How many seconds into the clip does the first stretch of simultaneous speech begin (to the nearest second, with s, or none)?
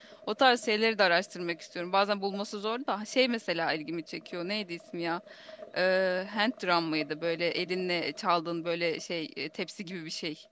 none